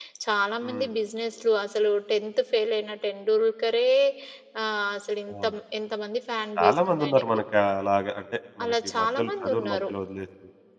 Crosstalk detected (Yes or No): Yes